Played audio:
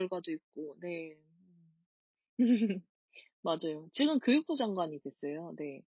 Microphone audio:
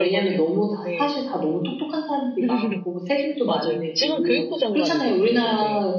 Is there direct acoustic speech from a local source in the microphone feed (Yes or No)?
Yes